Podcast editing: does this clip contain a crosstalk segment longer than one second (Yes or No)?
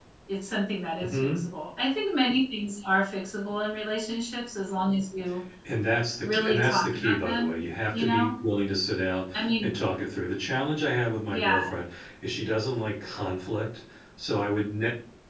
Yes